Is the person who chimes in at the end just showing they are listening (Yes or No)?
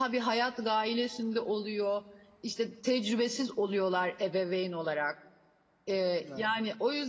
Yes